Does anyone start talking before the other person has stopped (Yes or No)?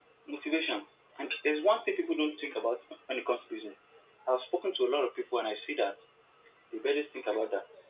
No